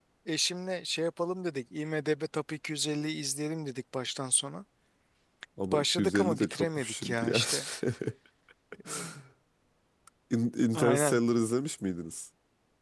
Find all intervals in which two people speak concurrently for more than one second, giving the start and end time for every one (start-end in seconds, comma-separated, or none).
5.7-7.4